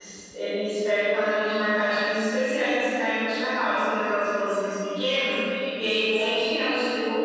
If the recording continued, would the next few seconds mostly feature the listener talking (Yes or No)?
No